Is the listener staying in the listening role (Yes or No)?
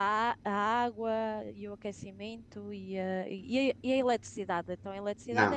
No